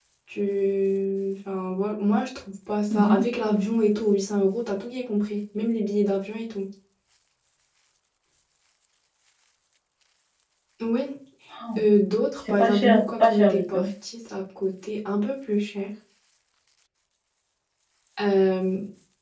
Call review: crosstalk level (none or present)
present